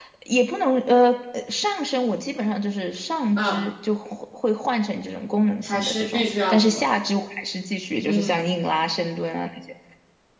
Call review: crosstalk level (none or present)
present